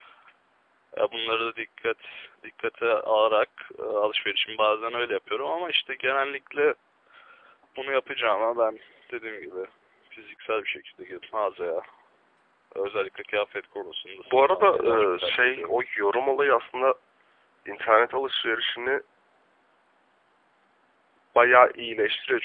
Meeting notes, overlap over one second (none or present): present